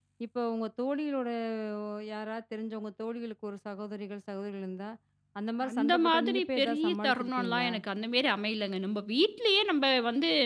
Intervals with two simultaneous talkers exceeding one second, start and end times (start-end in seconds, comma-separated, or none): 5.7-7.7